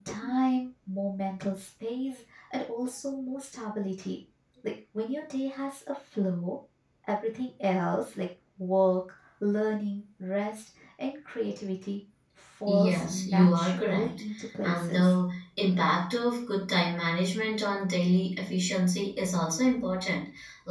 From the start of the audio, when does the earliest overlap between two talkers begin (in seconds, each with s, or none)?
12.7 s